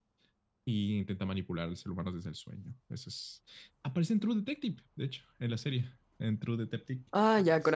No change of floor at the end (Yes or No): No